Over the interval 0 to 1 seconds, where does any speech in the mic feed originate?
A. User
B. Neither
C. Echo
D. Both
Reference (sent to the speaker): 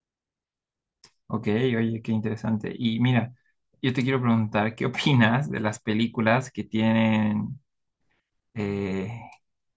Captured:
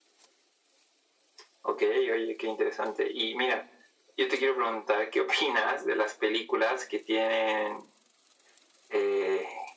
B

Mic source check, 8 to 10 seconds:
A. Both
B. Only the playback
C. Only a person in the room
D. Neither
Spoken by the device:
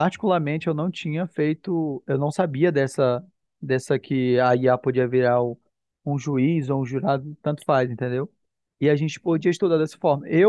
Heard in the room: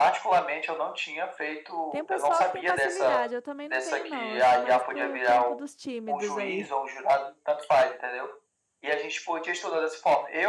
B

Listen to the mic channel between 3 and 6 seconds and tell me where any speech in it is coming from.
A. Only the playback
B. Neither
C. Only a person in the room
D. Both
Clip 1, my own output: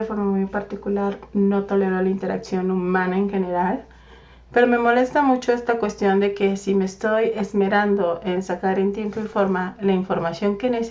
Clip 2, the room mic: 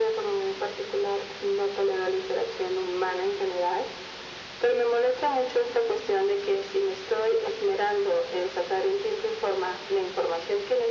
A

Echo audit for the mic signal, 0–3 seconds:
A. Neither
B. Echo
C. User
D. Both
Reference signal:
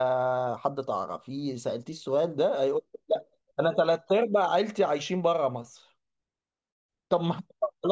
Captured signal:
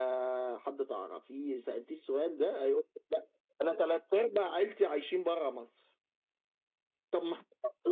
B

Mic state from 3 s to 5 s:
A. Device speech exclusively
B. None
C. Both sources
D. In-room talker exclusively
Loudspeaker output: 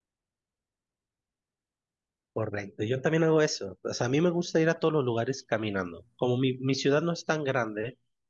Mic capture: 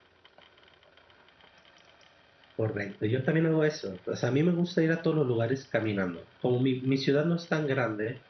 A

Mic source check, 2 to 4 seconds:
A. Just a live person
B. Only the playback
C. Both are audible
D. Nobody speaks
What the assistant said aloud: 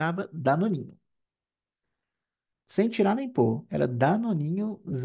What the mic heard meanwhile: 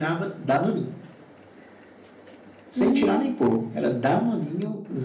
C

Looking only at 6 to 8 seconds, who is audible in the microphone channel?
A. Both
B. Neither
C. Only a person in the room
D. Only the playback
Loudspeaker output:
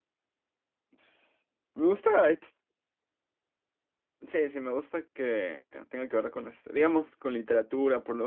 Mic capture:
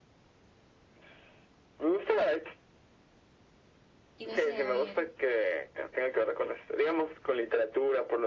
D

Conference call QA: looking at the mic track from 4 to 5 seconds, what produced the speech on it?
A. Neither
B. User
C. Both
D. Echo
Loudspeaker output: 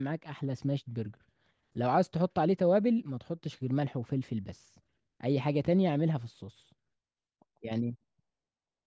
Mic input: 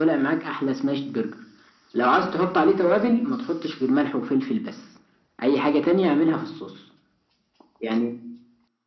D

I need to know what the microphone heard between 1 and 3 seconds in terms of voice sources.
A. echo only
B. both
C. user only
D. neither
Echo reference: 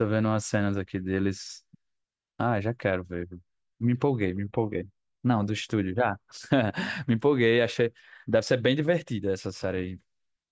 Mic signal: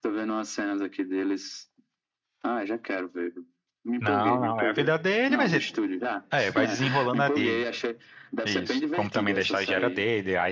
A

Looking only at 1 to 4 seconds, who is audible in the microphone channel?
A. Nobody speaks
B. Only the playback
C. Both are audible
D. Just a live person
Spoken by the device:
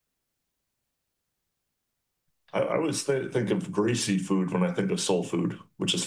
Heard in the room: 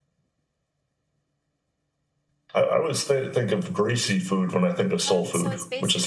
B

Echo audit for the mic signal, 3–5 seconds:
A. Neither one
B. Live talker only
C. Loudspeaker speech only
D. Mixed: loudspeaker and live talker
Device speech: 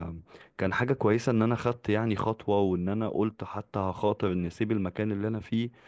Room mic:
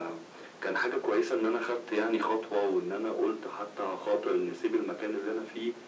C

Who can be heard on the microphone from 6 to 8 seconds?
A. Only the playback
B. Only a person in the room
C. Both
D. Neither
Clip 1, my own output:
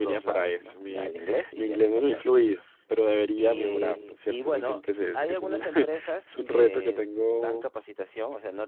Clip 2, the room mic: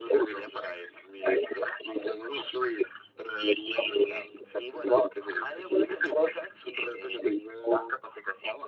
A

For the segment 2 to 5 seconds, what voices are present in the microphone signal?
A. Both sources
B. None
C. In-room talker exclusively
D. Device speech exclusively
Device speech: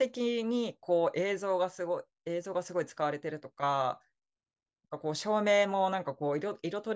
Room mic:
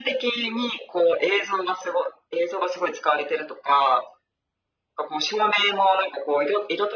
D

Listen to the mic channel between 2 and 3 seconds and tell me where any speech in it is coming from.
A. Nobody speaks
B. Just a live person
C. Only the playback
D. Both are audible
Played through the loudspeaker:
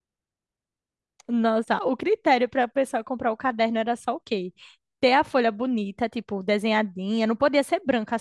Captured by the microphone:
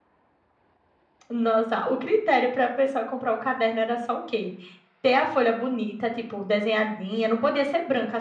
C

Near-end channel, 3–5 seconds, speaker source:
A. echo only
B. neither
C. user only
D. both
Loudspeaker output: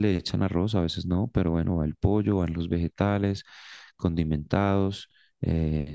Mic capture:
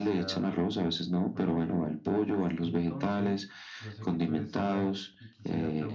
D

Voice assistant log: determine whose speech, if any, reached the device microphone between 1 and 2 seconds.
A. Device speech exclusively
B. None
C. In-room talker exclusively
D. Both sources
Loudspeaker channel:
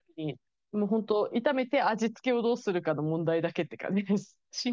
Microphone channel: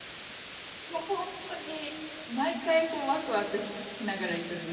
C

